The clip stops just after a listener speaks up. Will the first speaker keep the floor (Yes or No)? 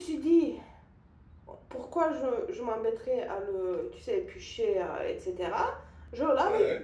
Yes